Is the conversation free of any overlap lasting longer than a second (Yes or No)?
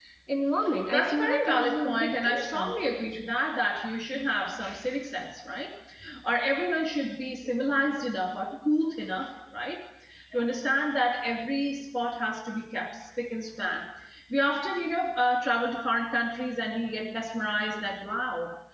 No